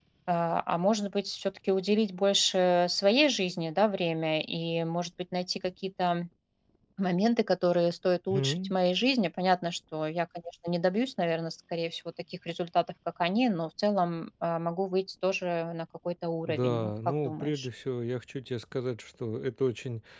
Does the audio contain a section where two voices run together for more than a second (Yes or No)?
Yes